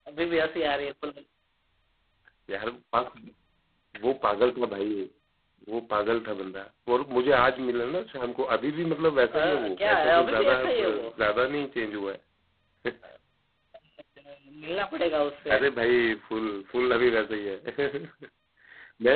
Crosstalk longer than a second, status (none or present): present